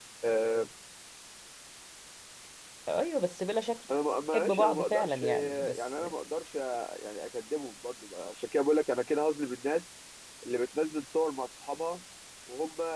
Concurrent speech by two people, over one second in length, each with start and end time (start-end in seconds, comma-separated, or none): 4.3-6.0